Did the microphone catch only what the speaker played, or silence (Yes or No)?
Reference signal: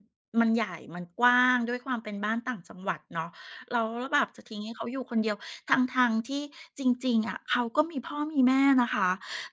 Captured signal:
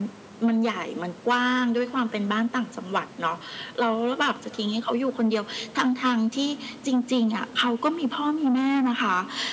Yes